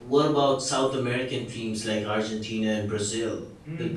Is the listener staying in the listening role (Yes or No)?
No